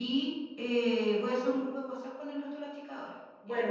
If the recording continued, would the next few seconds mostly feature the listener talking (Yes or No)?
Yes